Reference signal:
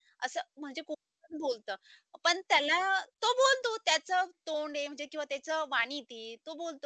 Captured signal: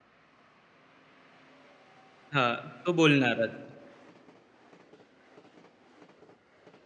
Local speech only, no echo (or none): हां. तो बोलणारच.